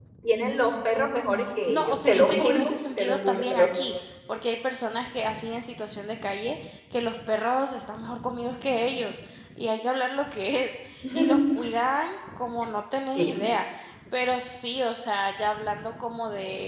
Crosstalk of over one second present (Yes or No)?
Yes